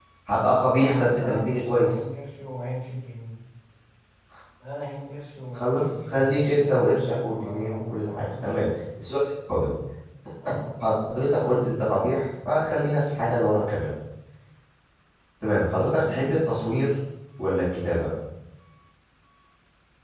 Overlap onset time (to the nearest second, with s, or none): 1 s